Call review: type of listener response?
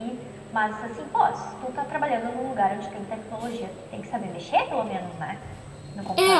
taking over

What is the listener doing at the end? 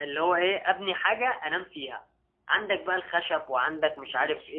listening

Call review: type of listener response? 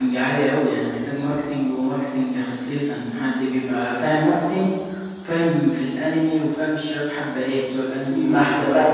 taking over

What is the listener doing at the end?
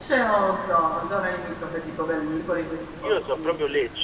taking over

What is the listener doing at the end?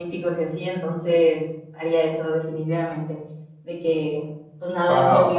listening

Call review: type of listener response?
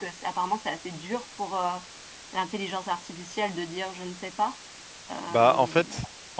taking over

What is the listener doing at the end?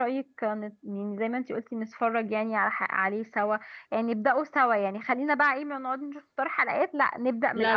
taking over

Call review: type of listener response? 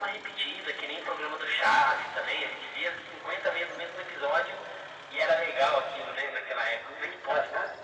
taking over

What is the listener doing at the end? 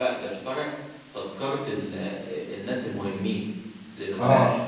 taking over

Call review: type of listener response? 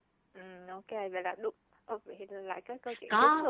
taking over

